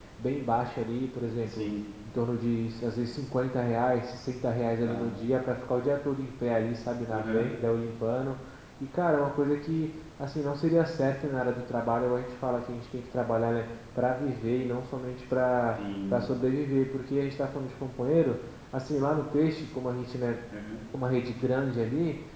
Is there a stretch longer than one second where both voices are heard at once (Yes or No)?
No